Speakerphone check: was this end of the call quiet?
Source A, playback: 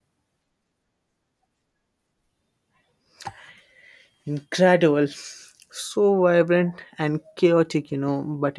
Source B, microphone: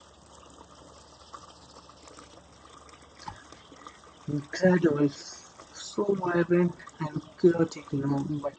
Yes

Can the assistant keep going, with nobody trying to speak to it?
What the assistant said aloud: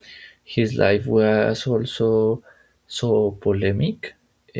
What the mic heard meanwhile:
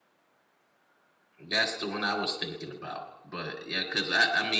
No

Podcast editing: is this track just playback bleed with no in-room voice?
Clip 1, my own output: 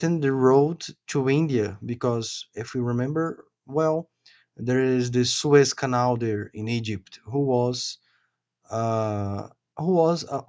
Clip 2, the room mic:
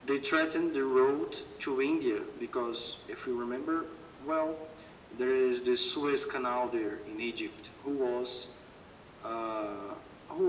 Yes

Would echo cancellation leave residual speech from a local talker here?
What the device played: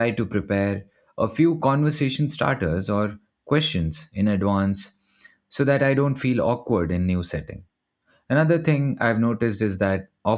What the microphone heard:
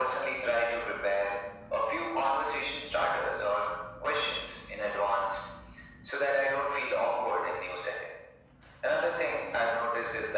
No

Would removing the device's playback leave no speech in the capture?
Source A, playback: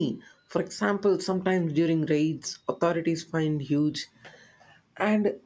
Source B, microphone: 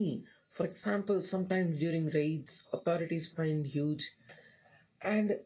Yes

